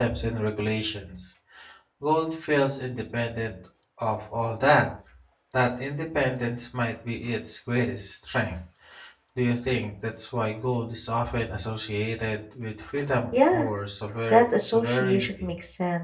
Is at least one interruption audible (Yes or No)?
Yes